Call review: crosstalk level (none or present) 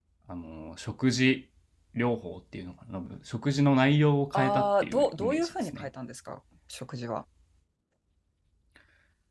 present